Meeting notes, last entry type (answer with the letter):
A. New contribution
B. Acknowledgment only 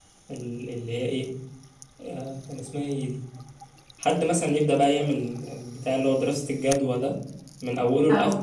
B